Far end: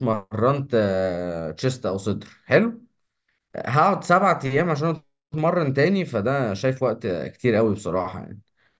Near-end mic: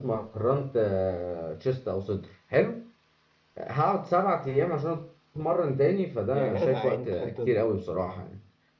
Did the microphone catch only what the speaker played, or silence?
No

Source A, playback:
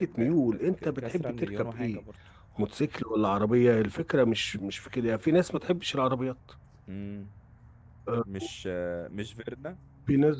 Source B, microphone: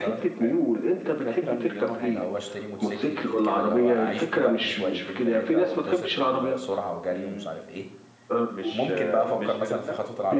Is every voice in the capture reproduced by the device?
No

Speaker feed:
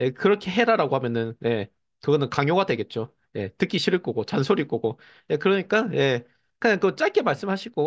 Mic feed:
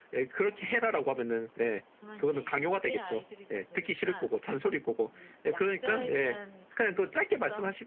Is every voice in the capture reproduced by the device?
No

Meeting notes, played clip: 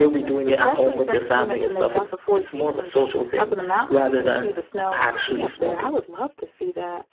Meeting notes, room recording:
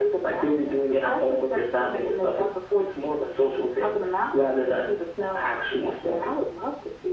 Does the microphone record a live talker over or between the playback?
No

